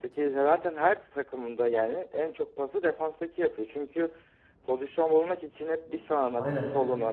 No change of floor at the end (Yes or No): Yes